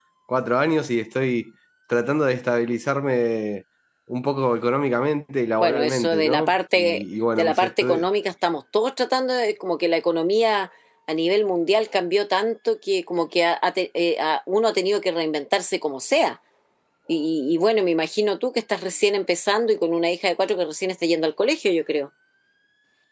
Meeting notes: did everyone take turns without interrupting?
No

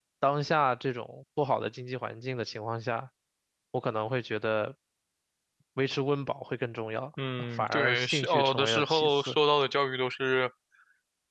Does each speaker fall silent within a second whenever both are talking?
No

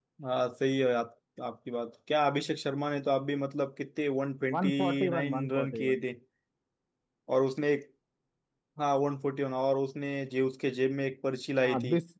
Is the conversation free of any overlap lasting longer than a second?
No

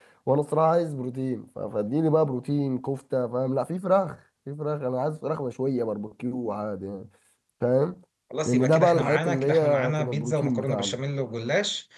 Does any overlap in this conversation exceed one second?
Yes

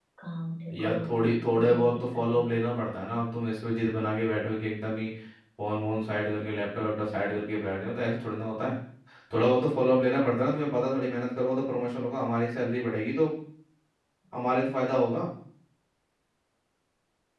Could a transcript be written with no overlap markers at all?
No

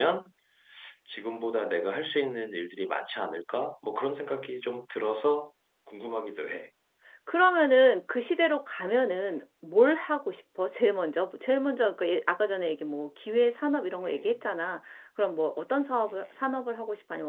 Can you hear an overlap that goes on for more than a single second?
No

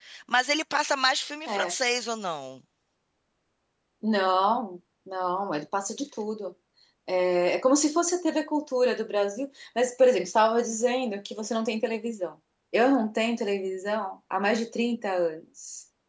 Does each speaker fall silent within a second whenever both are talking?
Yes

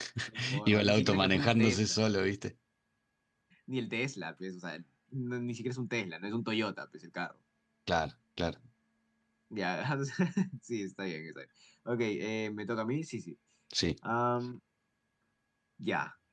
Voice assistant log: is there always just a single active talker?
No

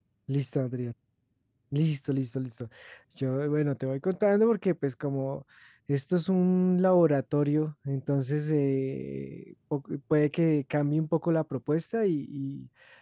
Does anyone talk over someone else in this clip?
No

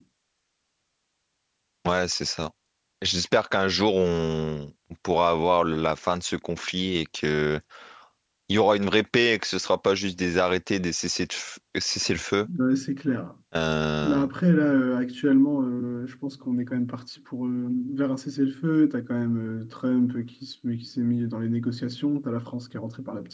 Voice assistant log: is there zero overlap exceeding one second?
Yes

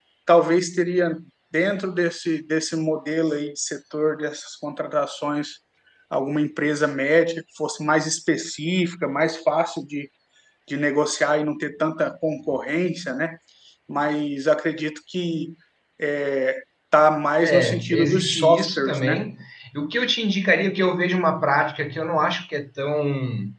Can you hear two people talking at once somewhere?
Yes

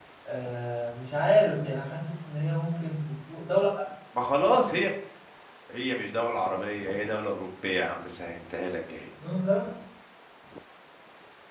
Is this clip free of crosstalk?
Yes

